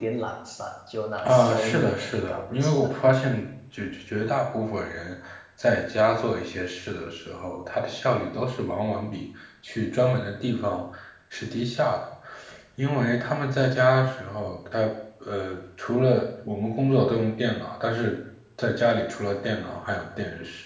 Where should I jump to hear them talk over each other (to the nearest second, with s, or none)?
1 s